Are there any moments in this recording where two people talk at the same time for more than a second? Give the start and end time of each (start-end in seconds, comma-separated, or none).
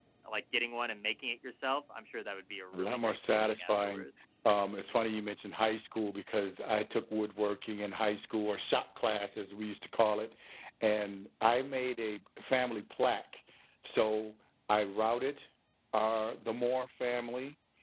2.7-4.1